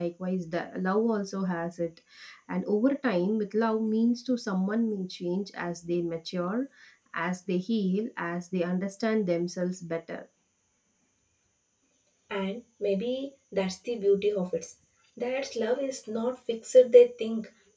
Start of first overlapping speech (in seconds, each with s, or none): none